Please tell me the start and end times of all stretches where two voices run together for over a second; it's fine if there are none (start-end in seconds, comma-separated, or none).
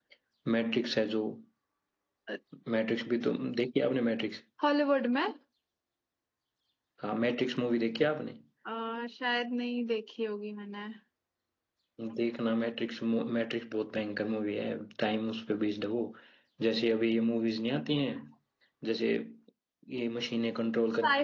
none